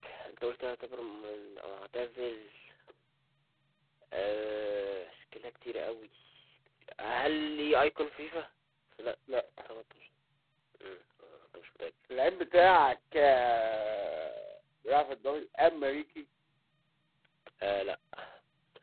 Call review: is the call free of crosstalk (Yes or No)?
Yes